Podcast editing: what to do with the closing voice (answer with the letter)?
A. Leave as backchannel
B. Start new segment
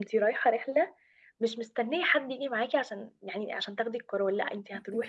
A